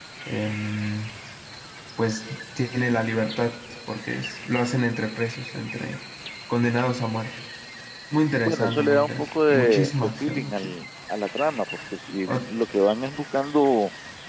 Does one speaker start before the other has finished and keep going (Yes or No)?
Yes